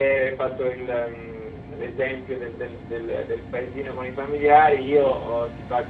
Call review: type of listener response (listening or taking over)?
listening